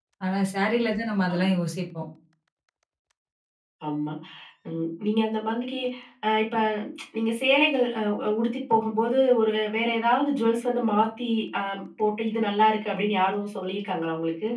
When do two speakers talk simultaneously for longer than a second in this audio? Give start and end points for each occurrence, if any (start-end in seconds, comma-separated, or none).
none